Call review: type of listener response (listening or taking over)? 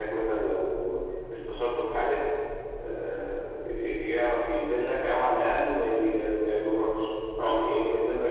listening